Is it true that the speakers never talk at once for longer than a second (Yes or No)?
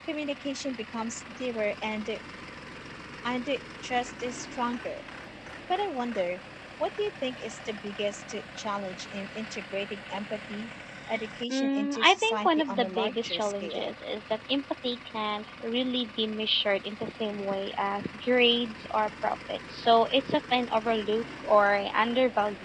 No